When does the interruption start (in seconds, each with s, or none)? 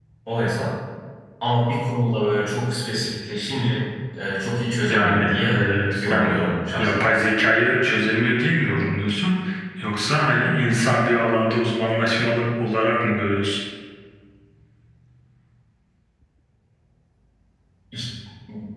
4.9 s